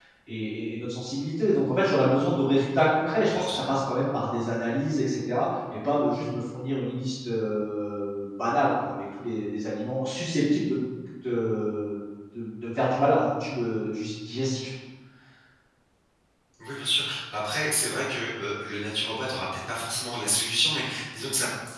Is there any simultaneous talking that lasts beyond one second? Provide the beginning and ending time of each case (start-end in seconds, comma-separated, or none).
none